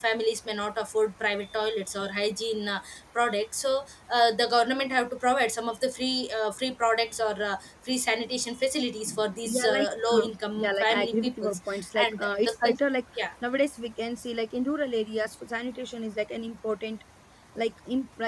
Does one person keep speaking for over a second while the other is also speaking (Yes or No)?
Yes